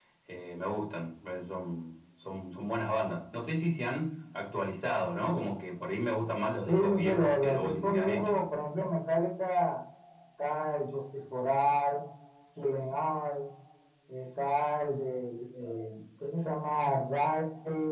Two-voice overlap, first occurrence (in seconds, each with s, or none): 6.7 s